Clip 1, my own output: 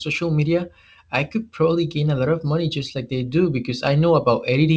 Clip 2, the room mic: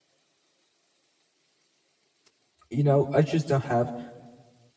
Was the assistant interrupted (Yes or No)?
Yes